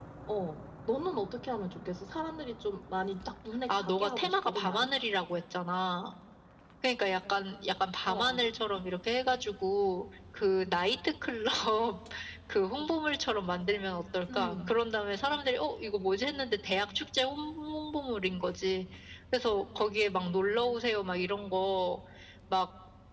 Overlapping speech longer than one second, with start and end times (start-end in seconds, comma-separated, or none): 3.7-4.9